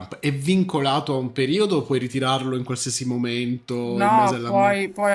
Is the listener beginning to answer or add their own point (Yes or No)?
Yes